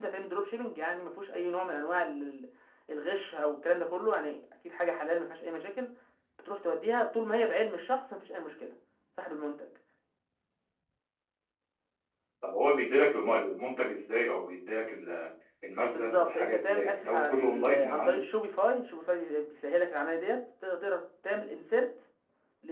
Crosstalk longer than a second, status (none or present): present